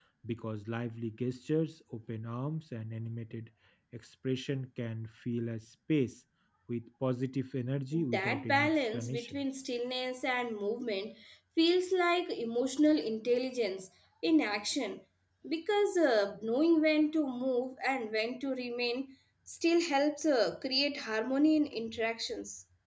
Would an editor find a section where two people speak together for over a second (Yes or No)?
Yes